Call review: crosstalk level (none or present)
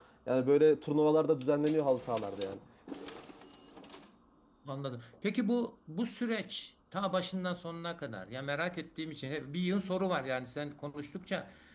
none